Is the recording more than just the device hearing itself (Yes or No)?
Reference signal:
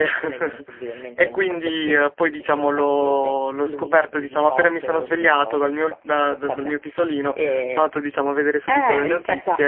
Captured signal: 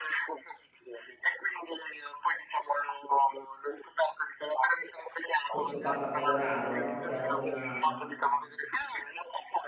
Yes